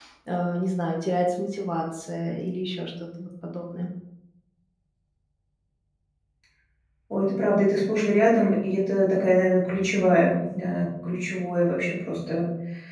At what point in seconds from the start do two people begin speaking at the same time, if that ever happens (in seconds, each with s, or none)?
none